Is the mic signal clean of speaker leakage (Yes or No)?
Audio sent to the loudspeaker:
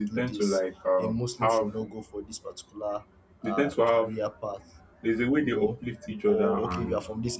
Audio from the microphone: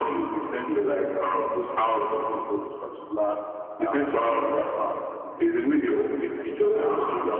No